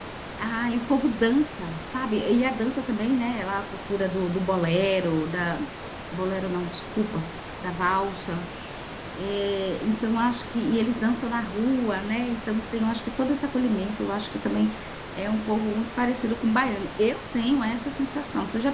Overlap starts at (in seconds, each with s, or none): none